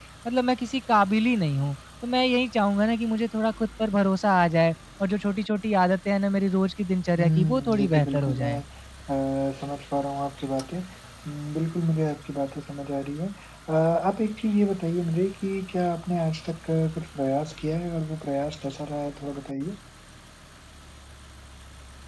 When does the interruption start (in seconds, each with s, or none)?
7.2 s